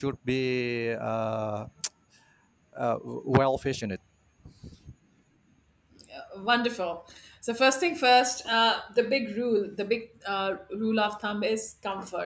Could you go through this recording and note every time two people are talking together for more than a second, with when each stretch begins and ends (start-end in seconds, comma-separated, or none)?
none